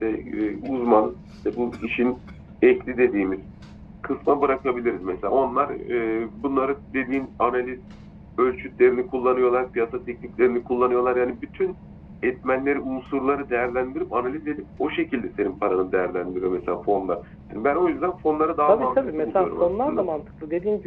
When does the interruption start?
18.7 s

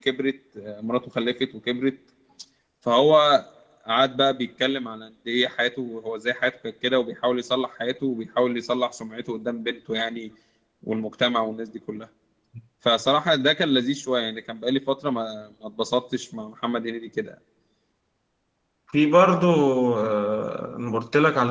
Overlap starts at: none

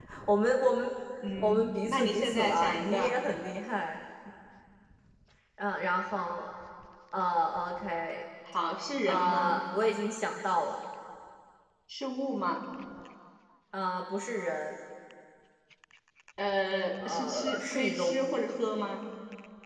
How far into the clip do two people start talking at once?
1.4 s

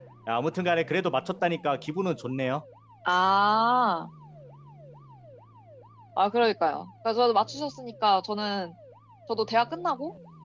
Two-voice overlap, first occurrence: none

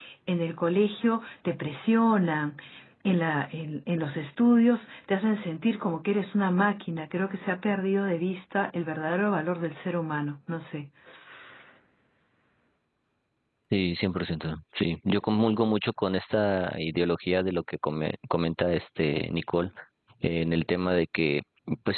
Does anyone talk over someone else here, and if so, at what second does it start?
none

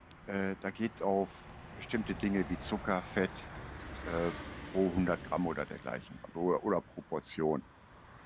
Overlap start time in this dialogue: none

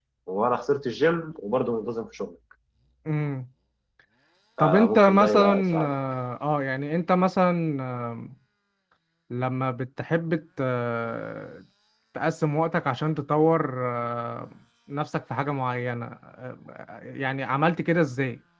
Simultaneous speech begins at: 4.6 s

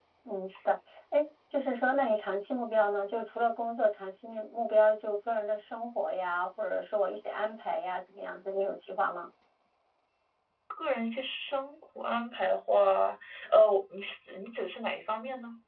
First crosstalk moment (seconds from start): none

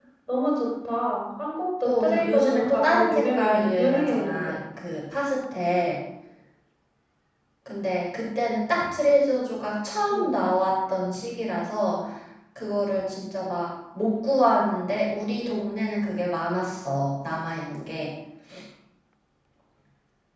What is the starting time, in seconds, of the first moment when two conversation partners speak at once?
1.8 s

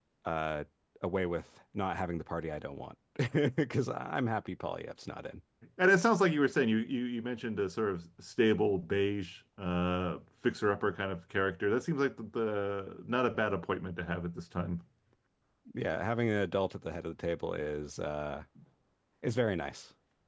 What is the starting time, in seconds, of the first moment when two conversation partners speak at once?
none

